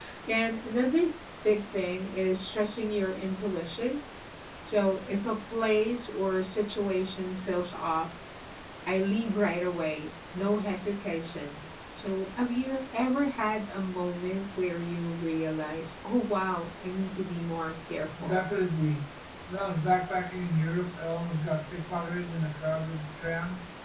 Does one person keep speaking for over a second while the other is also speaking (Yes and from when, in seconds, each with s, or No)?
No